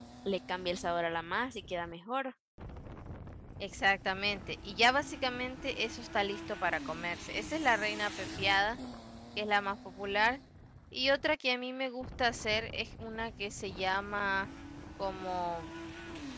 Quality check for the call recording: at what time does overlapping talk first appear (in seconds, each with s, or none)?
none